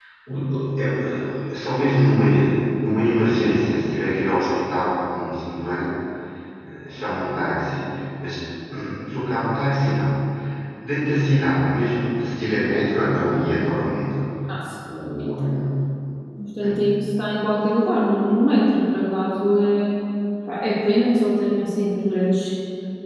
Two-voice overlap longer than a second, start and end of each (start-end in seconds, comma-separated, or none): none